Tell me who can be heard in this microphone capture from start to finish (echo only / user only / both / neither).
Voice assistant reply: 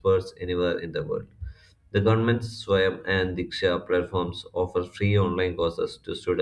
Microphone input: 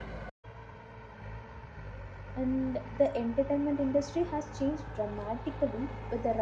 user only